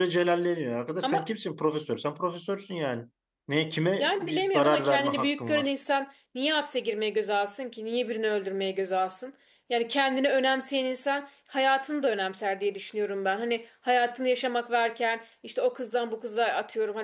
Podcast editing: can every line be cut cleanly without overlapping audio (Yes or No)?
No